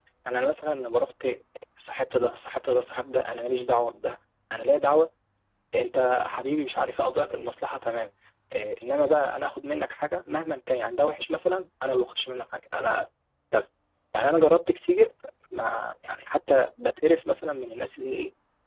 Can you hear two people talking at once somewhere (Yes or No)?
No